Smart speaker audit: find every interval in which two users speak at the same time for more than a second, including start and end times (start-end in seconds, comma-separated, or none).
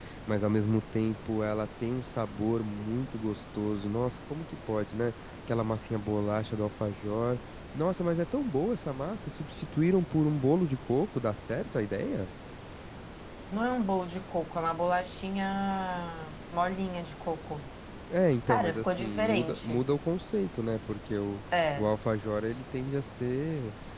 18.5-19.8